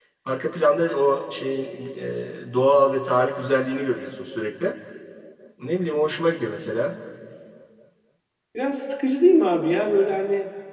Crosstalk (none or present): none